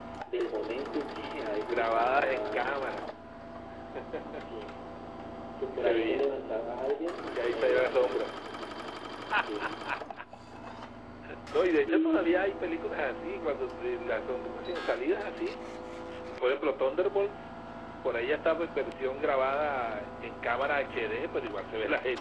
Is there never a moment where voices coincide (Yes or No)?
No